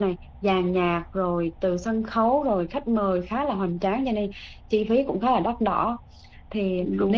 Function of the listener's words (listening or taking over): listening